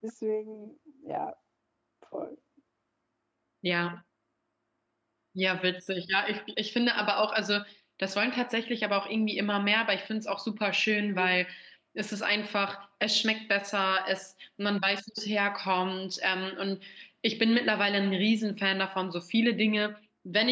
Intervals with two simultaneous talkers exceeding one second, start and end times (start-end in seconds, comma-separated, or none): none